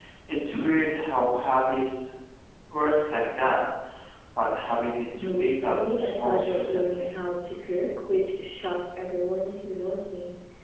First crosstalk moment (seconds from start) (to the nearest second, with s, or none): 5 s